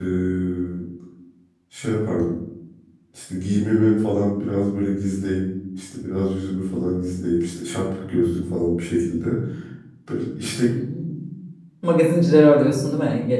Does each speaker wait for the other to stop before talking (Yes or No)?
Yes